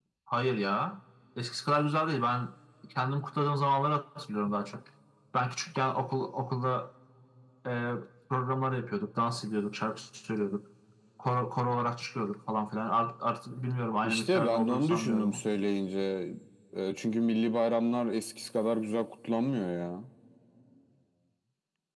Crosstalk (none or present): present